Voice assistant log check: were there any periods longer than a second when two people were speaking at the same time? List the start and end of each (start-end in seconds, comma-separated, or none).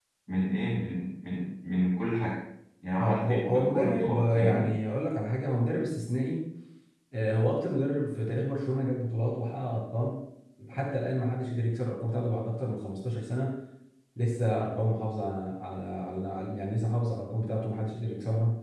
3.0-4.7